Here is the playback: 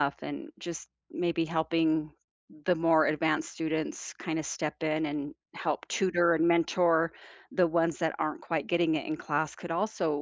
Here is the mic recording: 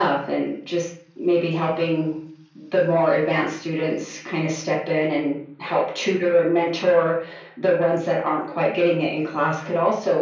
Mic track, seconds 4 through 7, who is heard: echo only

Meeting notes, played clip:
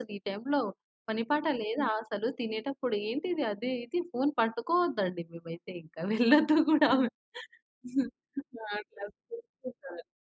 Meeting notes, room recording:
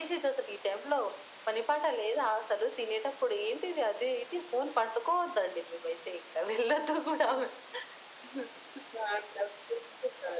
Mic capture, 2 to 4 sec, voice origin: echo only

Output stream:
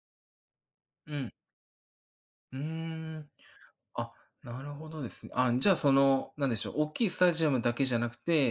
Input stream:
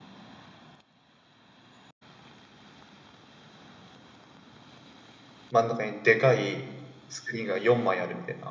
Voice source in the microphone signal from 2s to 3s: neither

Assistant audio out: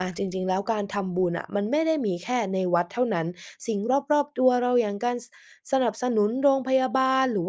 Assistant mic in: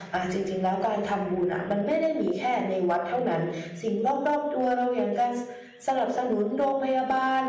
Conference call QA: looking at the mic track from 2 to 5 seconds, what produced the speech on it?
echo only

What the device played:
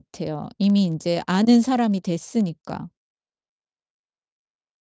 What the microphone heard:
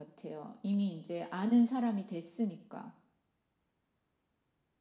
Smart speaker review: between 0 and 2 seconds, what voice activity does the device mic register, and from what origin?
echo only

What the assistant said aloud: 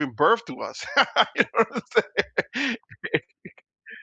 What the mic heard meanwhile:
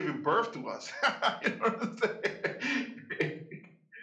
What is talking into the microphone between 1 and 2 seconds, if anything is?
echo only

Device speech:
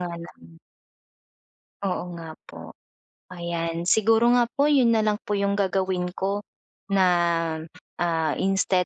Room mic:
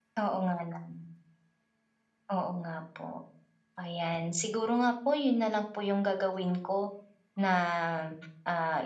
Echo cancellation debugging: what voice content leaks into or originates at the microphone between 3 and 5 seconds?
echo only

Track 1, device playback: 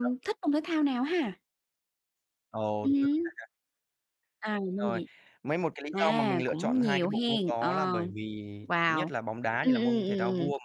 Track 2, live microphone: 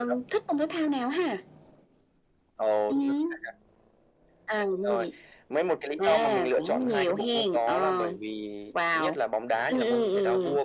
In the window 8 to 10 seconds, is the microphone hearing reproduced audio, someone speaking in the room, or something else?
echo only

